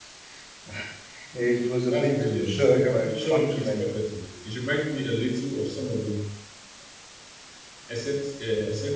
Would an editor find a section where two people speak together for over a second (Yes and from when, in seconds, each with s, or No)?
Yes, from 1.9 s